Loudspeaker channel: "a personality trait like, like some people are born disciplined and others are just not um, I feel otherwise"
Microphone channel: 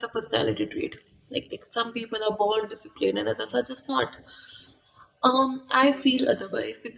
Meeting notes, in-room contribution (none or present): none